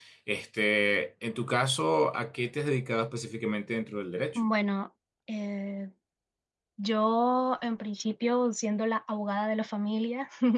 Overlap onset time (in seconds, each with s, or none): none